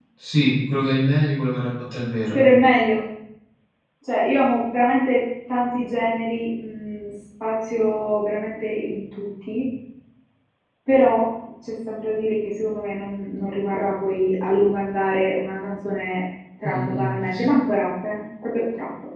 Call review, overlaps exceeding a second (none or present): none